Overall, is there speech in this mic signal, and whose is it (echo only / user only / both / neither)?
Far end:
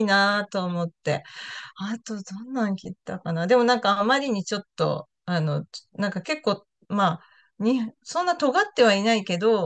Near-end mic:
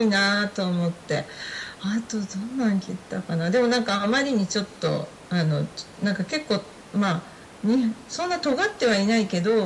echo only